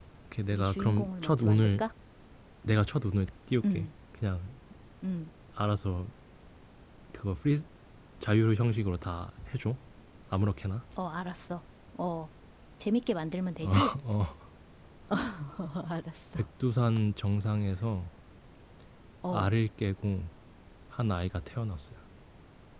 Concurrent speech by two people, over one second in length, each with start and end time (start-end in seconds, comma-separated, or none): 0.5-1.8